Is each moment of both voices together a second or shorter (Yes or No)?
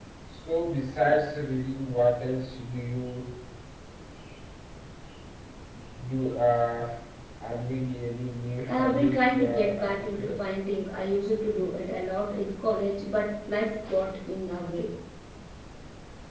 No